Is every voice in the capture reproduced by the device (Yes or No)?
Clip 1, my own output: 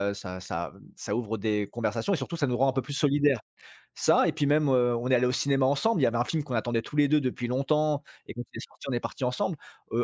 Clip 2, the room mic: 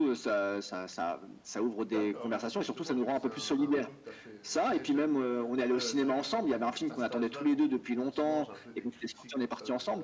No